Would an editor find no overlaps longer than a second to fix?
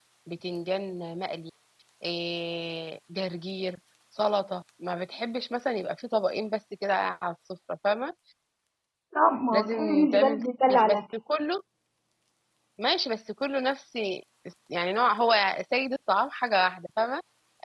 No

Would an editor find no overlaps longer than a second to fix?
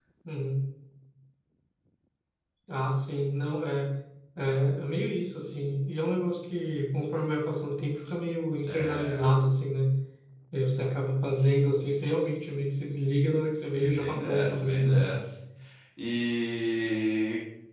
No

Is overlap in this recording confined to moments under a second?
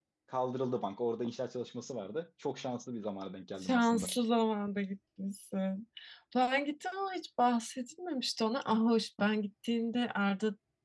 Yes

